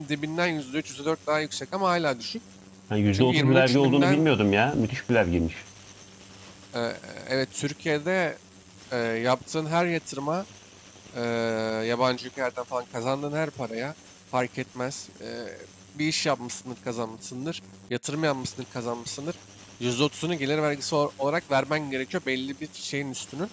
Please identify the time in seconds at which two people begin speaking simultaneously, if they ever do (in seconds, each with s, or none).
3.1 s